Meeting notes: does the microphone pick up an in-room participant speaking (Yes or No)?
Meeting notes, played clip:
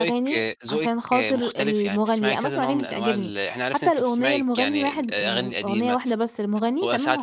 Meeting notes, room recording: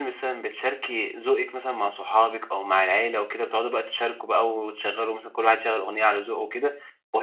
Yes